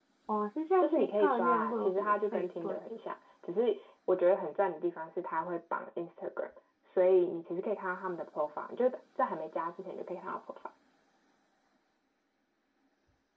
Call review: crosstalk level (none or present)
present